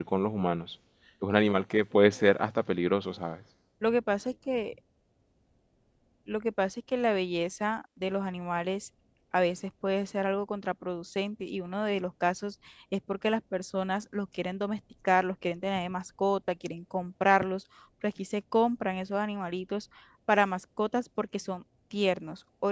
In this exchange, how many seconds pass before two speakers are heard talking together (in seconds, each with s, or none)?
none